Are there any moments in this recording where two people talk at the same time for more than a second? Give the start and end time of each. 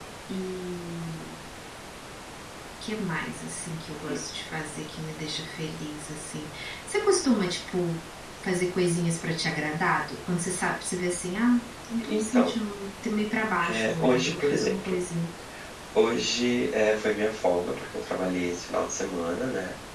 13.7-14.9

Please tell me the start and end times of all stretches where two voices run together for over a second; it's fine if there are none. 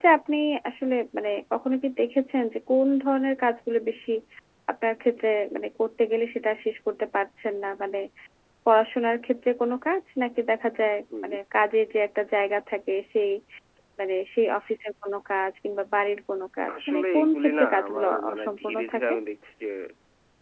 16.9-19.1

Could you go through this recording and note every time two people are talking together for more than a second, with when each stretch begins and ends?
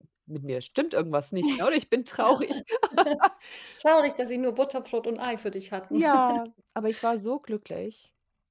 none

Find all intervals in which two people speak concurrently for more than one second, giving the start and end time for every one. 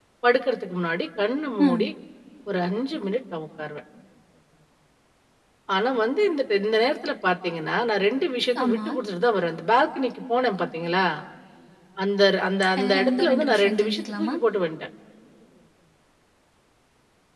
12.8-14.3

